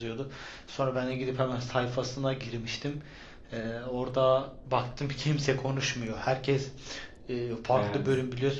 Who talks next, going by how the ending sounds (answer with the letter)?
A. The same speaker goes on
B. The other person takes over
A